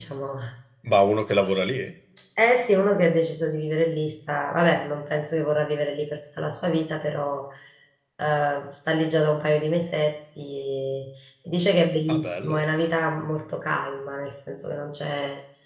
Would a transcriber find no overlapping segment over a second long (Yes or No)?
Yes